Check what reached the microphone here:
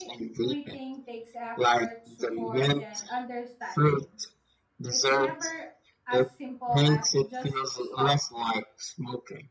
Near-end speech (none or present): present